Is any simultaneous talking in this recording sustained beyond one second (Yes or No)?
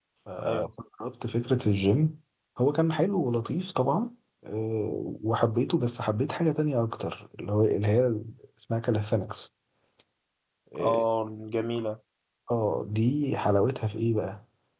No